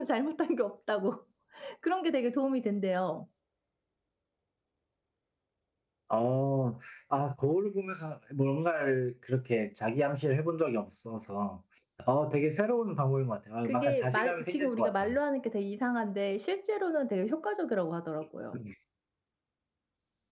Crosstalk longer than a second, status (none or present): present